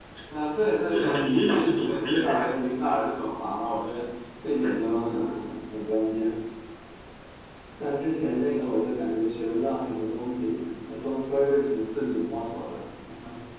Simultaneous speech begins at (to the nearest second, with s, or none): 1 s